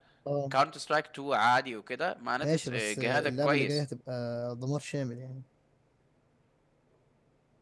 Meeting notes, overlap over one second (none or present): present